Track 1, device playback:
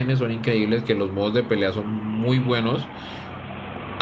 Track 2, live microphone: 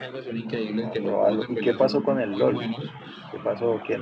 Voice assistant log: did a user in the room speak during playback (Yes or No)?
Yes